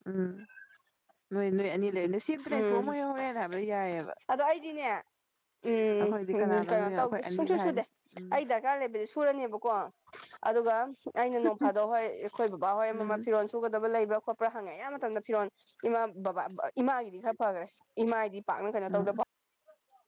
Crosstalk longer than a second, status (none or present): present